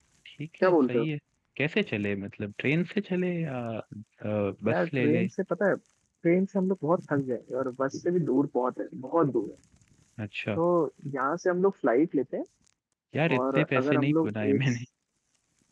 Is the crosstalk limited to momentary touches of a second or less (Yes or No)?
No